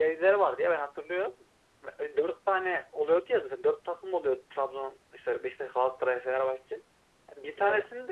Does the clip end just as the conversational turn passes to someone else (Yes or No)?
No